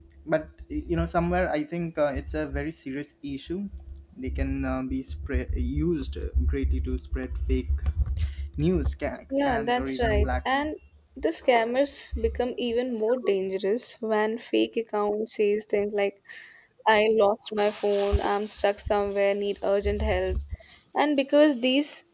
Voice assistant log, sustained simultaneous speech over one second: present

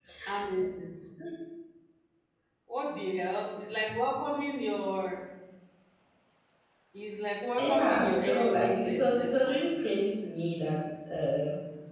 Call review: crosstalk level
present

